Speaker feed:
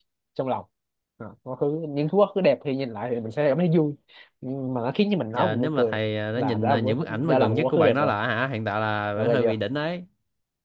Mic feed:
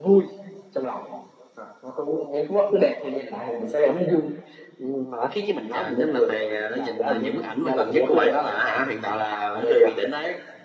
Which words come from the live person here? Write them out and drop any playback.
none

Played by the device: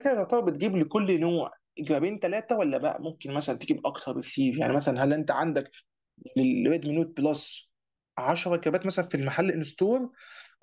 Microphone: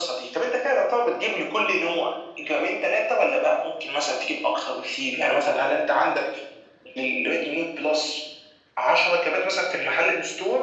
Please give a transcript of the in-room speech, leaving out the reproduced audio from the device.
none

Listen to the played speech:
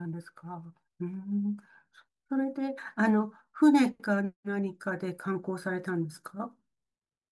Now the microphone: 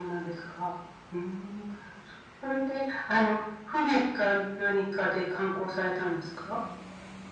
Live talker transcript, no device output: none

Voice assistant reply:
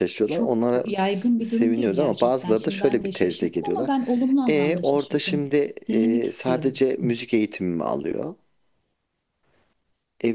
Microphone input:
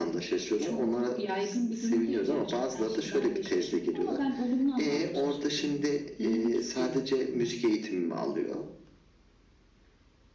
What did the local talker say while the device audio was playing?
none

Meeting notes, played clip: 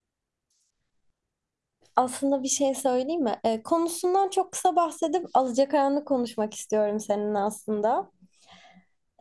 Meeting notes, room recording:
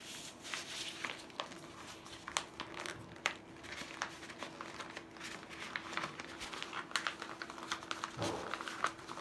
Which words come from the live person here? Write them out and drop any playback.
none

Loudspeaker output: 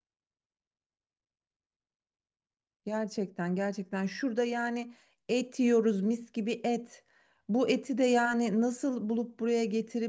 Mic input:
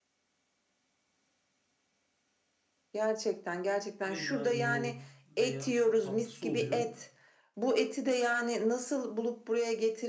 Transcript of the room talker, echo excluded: veya yoğurt veya işte tatlısı oluyor.

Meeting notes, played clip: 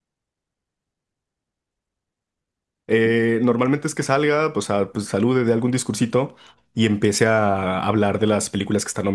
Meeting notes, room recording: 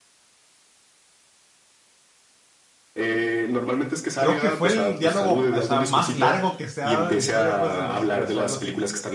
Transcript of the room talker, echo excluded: creo que fue el diálogo, o sea, más largo que se ha dado en la historia, pues, de los Óscares o algo así.

